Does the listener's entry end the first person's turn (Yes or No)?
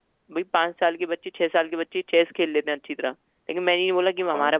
No